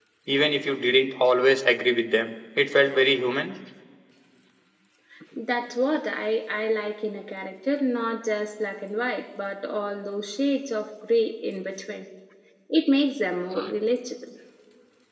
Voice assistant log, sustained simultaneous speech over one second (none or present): none